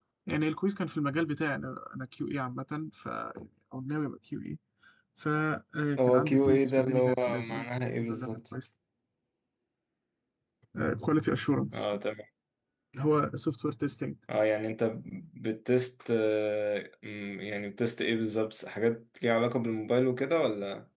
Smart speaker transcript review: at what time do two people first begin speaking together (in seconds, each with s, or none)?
6.0 s